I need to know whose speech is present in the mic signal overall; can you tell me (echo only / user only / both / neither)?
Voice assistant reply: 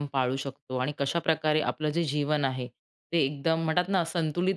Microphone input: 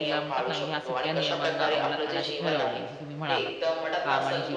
both